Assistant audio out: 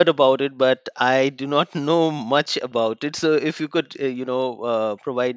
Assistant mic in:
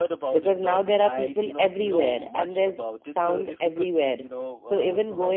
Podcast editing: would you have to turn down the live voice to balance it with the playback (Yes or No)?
Yes